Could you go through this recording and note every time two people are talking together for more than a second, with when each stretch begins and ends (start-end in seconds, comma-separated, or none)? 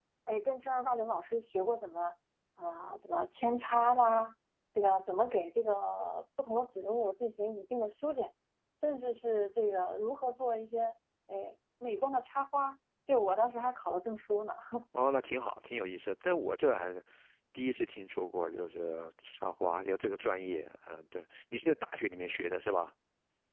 none